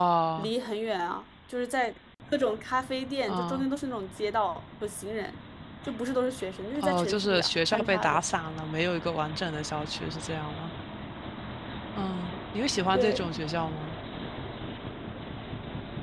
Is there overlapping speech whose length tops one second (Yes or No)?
Yes